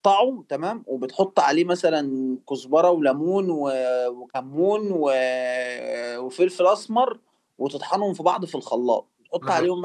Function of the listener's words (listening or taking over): listening